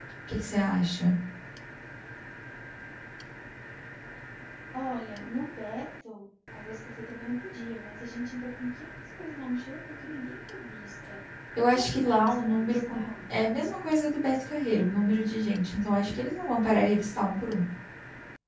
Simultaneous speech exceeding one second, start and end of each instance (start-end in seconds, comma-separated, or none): 11.7-13.0